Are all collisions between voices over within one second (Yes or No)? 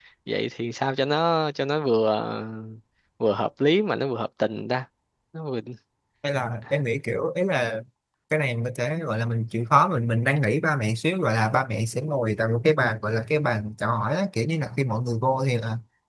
Yes